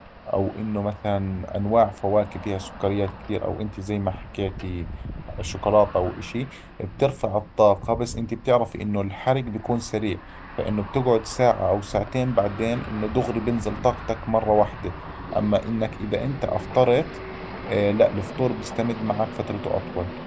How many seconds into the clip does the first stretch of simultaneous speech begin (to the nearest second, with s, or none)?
none